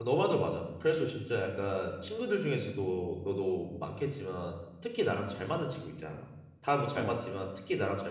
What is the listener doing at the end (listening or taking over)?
listening